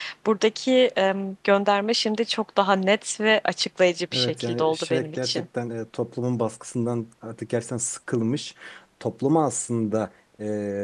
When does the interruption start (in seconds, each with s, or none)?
4.1 s